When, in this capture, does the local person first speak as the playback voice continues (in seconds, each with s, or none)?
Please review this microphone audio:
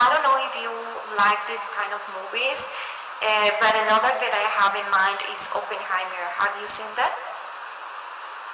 none